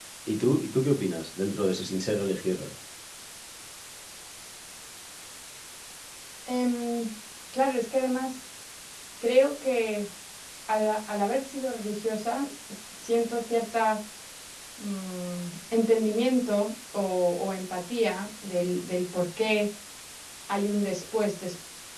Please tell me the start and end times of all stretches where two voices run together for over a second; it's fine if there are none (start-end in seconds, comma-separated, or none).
none